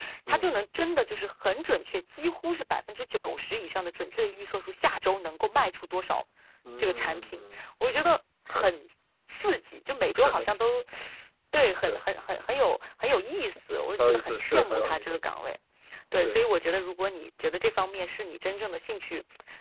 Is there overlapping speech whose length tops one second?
Yes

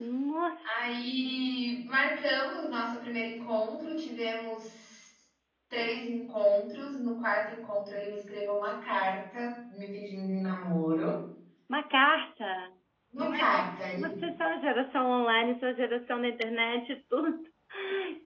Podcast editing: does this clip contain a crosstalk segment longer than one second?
No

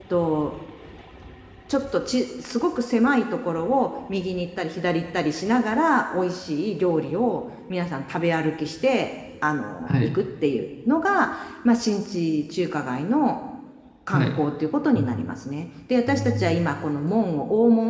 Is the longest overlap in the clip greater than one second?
No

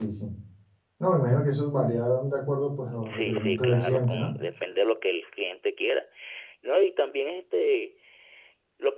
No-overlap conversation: No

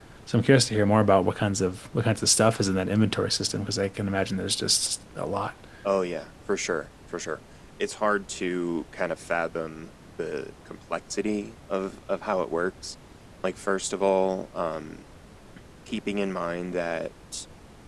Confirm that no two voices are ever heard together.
Yes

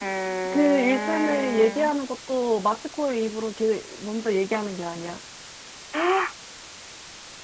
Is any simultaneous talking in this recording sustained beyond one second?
Yes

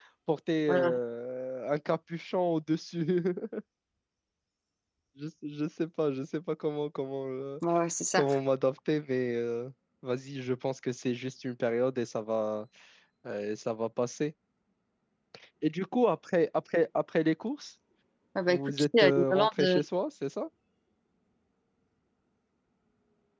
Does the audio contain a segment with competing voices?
Yes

